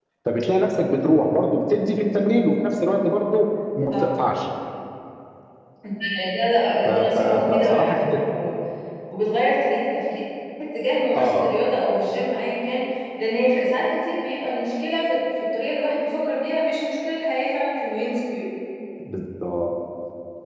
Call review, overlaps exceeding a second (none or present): present